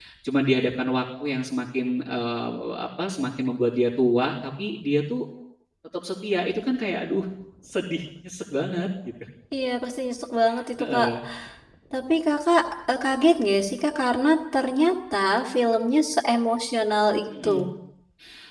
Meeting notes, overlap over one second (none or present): none